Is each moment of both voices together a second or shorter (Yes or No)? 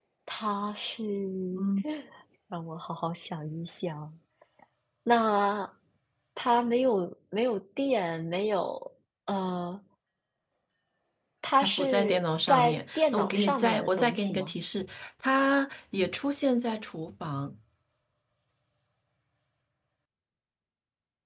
No